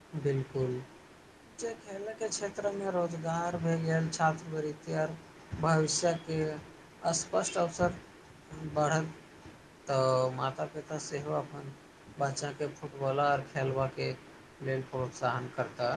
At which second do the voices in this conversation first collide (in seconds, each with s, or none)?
none